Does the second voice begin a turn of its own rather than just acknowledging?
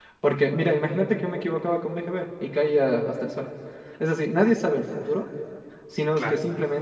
No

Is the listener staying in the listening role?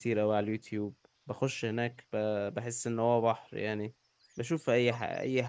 Yes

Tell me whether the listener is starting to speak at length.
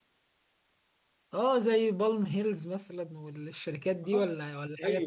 Yes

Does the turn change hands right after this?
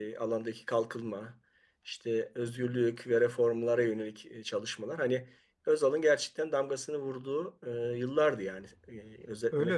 Yes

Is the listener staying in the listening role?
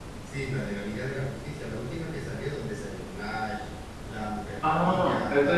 No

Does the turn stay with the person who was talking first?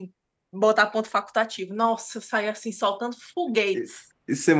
No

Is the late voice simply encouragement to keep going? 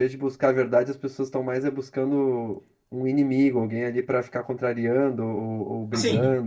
No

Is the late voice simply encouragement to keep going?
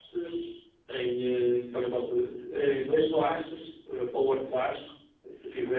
Yes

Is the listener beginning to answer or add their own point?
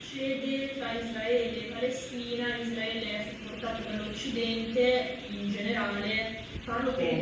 No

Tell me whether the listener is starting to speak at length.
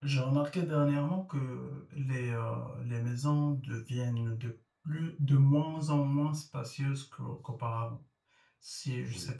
No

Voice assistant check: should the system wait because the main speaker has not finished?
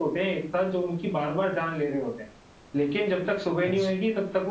Yes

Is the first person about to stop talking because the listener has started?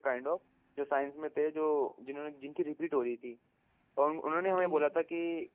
No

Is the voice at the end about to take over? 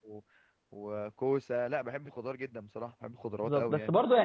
Yes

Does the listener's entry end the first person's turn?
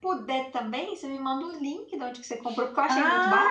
Yes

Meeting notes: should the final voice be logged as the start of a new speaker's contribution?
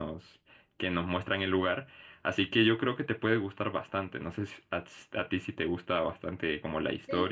Yes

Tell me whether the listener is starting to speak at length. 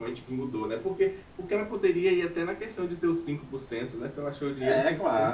Yes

